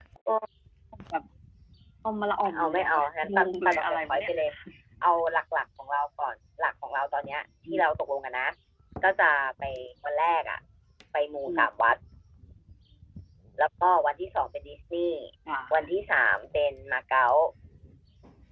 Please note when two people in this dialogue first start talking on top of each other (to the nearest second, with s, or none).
2 s